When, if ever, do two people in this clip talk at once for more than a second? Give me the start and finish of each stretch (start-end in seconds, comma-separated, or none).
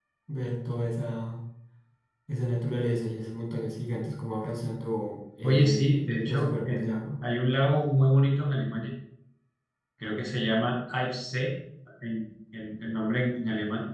5.4-7.0